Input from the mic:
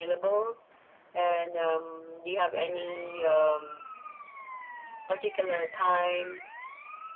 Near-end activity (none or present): none